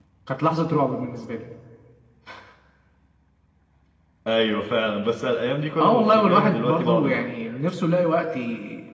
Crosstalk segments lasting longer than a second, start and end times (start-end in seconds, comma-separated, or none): 5.8-7.2